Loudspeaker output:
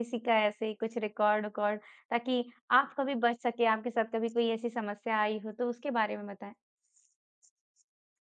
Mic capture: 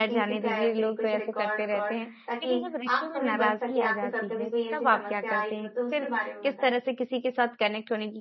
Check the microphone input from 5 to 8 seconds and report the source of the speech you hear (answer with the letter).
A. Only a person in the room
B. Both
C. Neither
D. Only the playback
B